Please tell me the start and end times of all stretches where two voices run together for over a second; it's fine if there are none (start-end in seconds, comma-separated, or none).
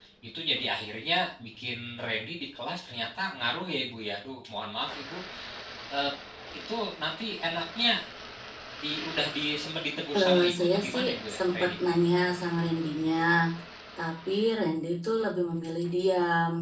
10.2-11.7